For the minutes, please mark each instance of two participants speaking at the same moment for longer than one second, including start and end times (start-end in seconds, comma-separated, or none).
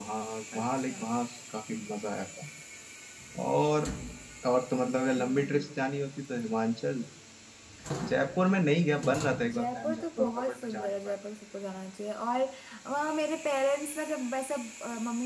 9.5-11.1